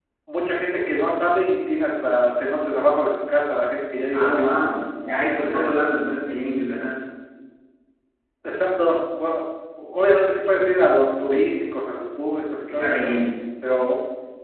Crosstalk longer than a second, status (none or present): none